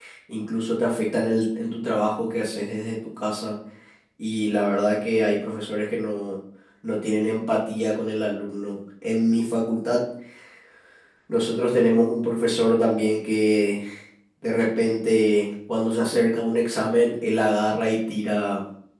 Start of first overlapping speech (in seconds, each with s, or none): none